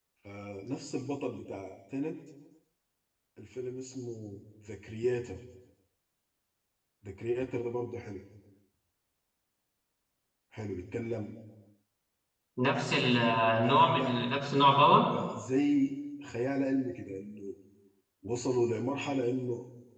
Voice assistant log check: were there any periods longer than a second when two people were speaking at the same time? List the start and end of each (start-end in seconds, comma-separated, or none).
none